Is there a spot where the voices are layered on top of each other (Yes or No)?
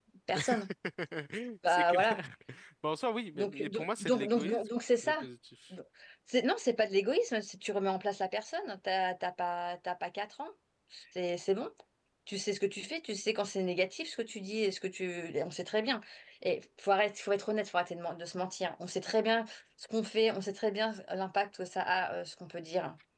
Yes